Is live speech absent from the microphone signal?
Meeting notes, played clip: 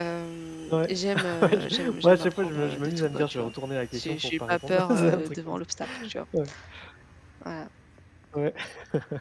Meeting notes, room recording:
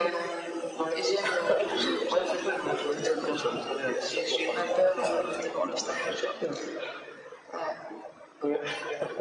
Yes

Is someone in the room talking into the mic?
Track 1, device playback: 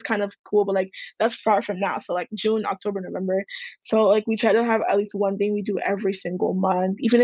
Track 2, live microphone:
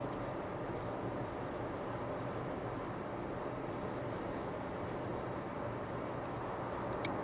No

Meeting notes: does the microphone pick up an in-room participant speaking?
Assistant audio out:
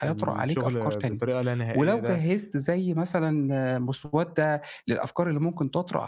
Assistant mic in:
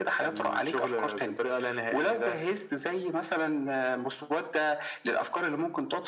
No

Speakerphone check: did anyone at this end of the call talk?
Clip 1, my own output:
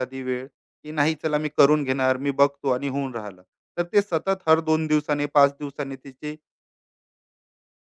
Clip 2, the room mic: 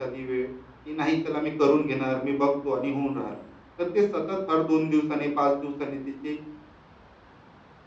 No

